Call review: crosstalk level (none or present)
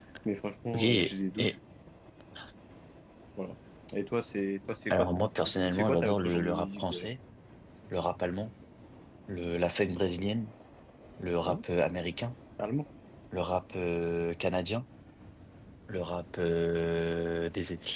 present